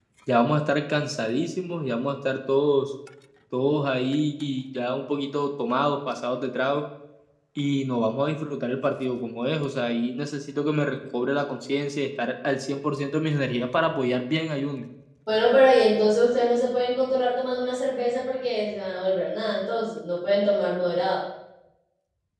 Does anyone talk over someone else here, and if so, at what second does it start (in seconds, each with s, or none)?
none